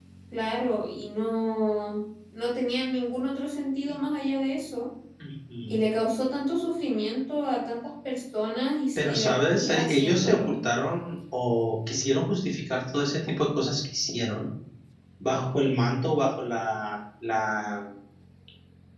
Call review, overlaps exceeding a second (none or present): present